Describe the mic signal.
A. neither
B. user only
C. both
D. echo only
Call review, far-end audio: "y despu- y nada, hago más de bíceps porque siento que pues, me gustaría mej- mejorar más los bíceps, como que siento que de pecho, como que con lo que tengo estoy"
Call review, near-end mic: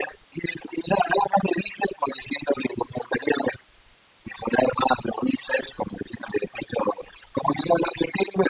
D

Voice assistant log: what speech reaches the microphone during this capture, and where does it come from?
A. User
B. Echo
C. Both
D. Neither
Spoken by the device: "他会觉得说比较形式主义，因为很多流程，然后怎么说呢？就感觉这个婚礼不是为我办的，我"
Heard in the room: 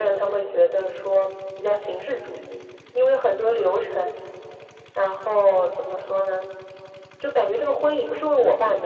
B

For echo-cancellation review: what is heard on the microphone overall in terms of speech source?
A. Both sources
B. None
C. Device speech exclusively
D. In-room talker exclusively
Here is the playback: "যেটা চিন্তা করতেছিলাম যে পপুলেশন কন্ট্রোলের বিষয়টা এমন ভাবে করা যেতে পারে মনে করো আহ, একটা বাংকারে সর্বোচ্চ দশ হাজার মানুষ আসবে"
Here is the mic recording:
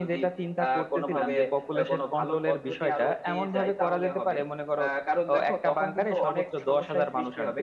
A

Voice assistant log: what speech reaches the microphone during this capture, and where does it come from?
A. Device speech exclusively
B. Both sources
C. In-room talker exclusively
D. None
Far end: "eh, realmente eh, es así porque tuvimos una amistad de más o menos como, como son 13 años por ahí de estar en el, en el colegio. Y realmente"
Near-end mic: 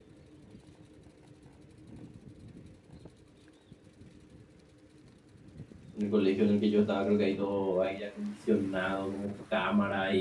C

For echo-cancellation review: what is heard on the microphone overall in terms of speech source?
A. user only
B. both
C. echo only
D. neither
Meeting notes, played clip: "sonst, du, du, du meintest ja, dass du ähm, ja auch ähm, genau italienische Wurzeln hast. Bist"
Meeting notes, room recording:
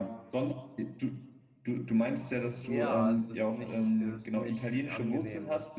B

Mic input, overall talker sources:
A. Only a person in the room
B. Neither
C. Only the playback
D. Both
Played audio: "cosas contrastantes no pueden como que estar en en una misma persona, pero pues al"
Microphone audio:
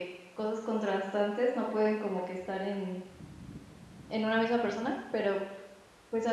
C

